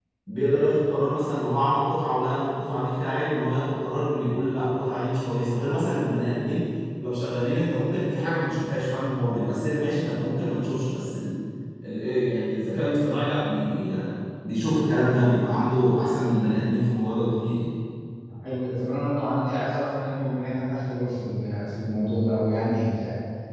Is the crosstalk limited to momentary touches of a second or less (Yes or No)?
Yes